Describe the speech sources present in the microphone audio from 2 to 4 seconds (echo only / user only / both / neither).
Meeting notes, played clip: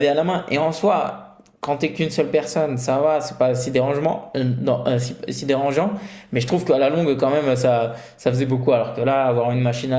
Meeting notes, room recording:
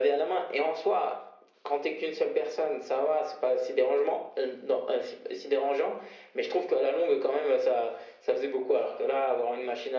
echo only